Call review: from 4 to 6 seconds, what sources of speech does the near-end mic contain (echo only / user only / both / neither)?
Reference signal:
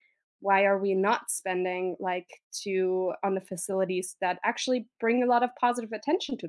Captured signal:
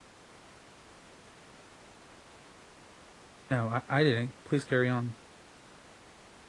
user only